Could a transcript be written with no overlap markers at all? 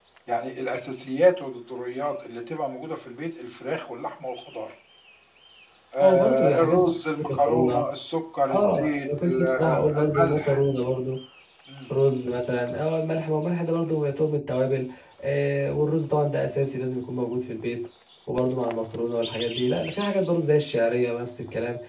No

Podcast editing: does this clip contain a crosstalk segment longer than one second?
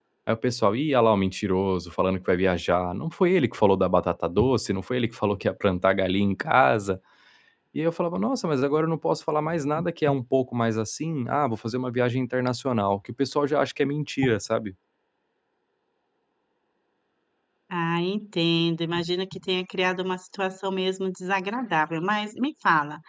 No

